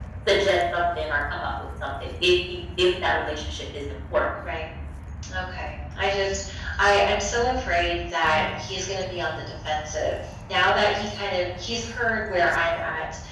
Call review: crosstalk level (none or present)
none